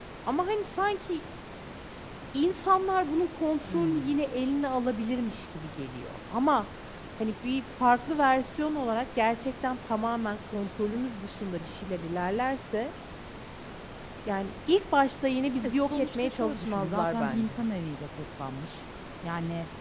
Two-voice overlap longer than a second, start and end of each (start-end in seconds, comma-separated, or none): 15.6-17.6